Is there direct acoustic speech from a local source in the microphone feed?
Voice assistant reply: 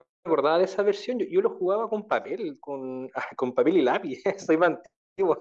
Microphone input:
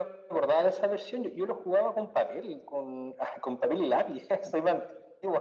No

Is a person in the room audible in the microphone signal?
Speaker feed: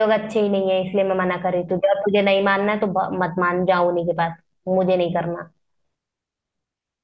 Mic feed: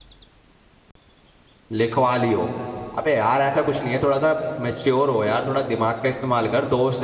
Yes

